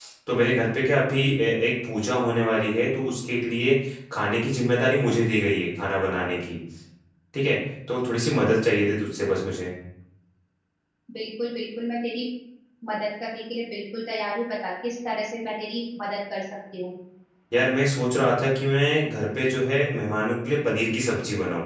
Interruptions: none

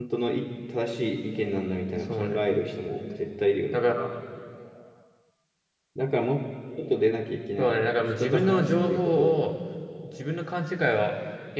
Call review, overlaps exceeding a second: present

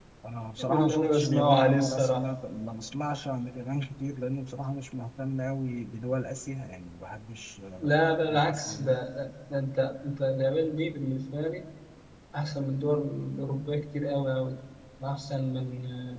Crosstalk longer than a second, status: present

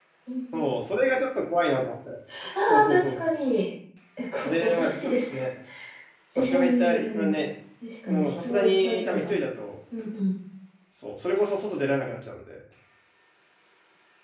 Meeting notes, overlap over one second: present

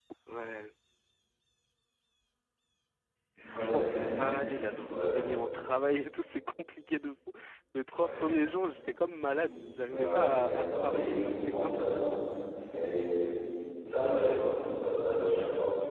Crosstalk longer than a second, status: present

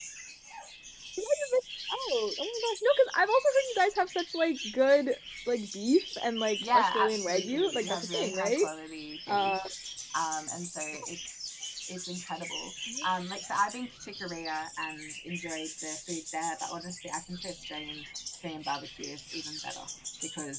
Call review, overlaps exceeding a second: present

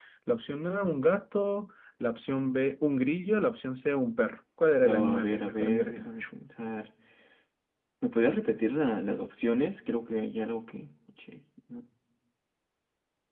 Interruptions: present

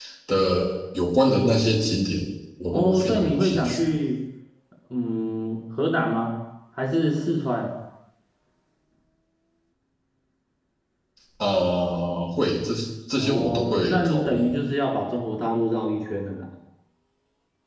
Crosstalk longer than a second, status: present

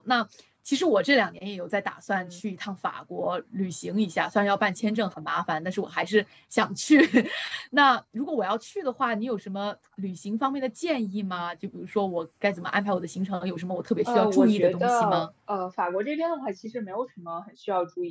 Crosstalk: present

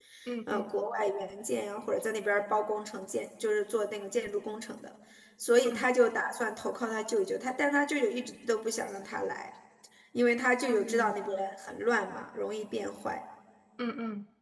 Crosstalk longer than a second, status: none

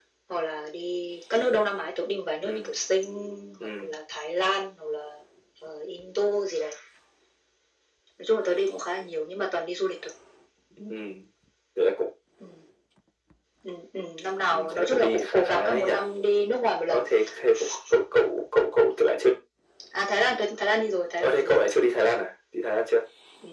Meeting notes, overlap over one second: present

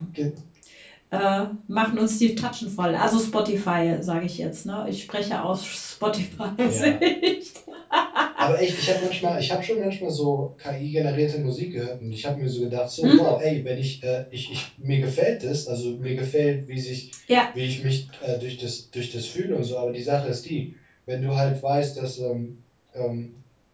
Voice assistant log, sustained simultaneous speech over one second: none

